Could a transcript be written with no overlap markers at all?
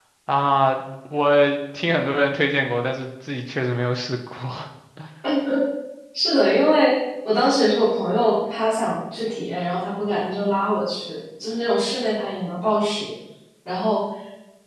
Yes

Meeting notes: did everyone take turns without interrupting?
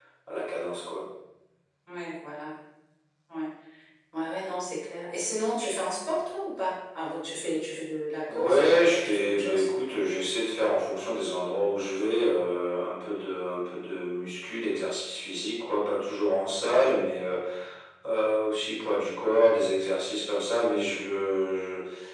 No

